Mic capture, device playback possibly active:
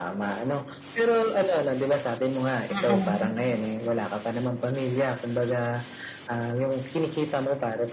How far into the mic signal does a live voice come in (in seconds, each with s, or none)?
2.7 s